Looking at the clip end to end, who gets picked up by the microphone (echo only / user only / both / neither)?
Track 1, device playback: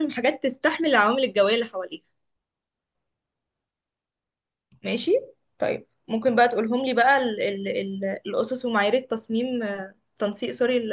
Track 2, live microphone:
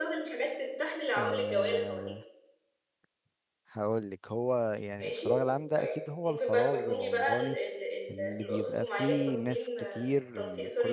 both